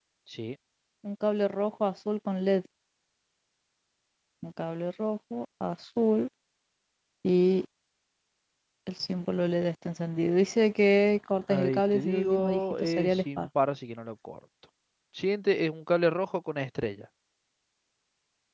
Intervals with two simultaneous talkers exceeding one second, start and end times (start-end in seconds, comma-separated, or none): 11.5-13.5